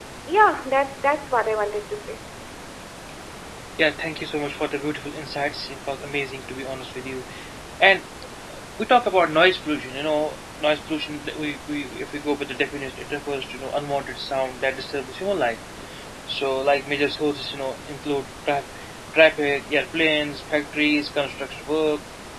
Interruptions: none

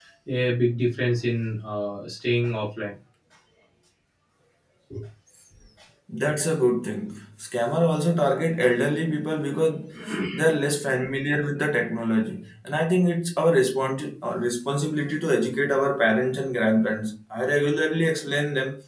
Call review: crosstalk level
none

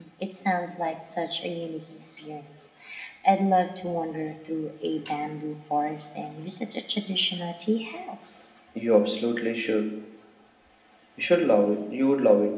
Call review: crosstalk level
none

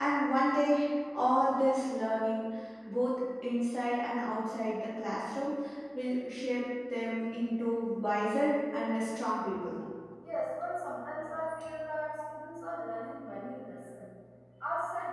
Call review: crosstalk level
none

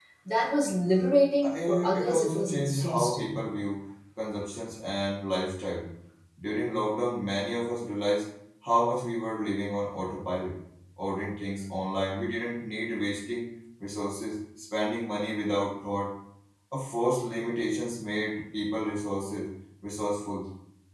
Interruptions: present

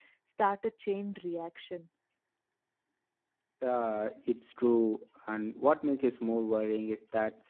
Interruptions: none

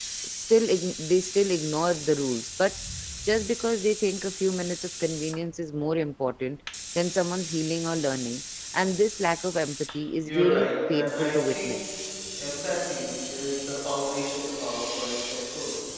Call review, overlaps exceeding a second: present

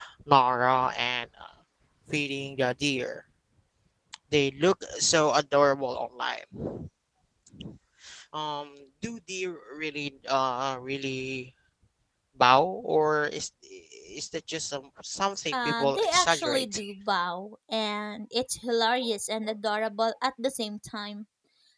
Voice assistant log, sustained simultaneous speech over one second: present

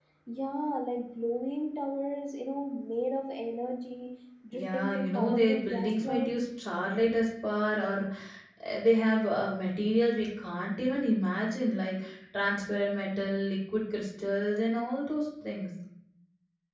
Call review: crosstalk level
present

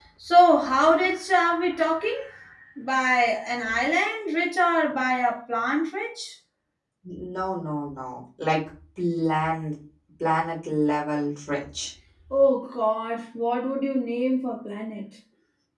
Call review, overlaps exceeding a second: none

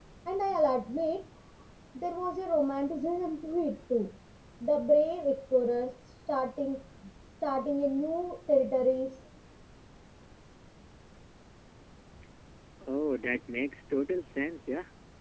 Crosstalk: none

